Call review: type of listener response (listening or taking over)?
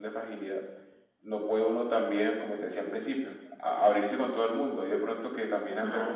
listening